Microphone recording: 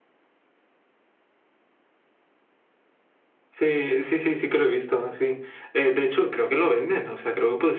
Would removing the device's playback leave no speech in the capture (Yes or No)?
Yes